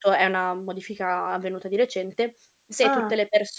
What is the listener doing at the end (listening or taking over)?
listening